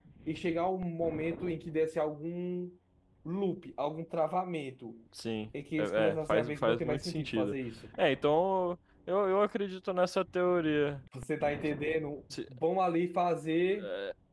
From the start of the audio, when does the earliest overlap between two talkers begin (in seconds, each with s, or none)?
5.8 s